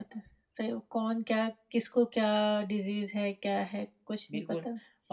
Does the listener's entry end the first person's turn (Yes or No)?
Yes